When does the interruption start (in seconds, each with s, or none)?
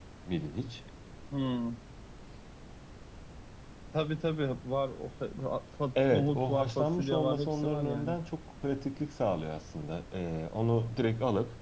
6.0 s